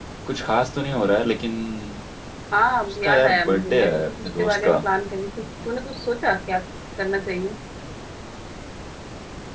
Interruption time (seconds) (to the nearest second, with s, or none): 3 s